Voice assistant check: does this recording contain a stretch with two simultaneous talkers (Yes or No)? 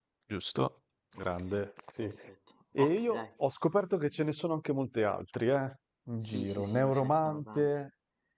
Yes